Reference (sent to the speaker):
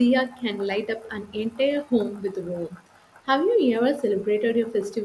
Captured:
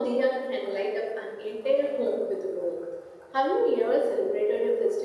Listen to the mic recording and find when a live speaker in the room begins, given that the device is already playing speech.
none

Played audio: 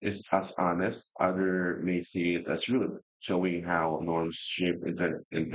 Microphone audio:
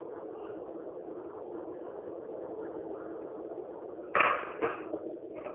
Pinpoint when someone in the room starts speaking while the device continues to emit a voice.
none

